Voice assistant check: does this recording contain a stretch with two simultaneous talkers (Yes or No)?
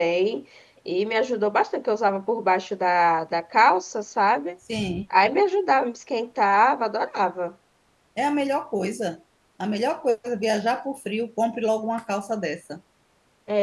No